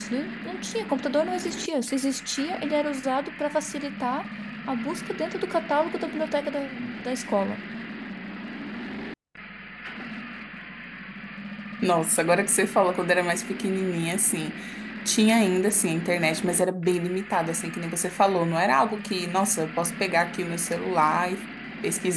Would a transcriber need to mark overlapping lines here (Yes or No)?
No